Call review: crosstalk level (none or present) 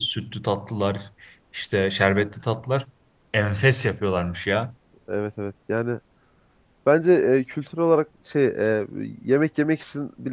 none